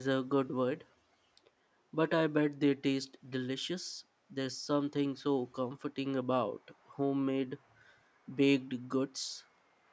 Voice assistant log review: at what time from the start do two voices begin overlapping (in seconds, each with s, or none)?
none